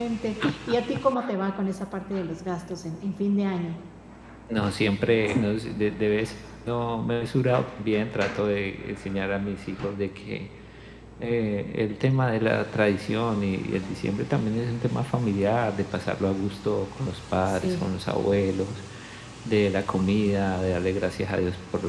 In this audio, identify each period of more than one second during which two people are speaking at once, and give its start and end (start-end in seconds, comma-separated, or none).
none